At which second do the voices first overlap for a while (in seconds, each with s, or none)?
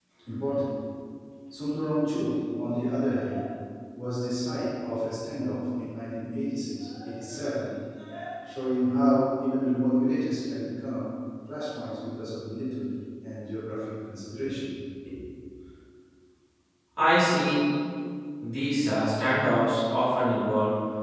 none